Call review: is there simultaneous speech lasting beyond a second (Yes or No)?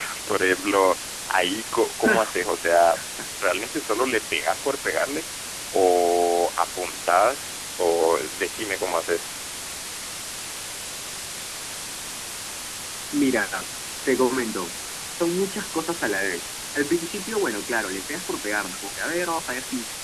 No